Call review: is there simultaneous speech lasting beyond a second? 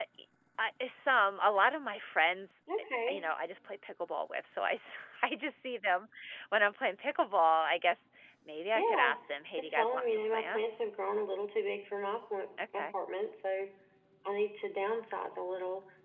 Yes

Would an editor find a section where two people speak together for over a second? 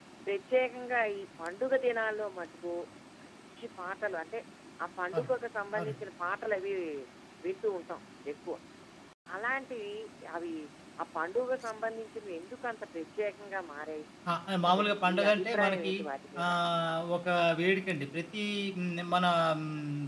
Yes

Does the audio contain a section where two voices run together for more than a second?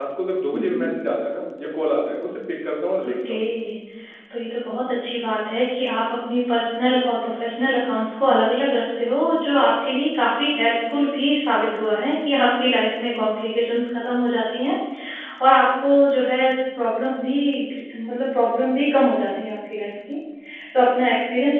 No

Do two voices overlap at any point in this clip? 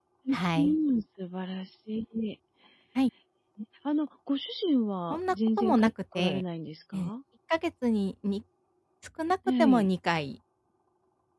Yes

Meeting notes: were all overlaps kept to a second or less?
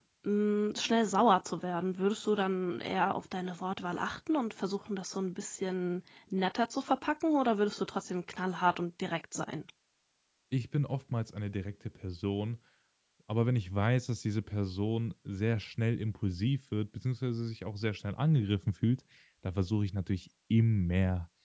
Yes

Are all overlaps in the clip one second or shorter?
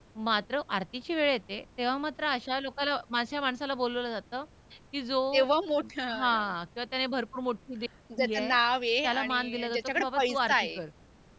No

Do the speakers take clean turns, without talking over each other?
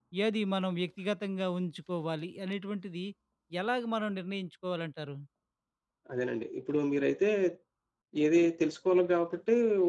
Yes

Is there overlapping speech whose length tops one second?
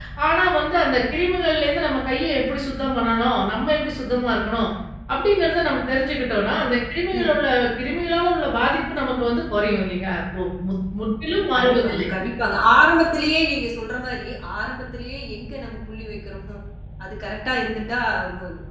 No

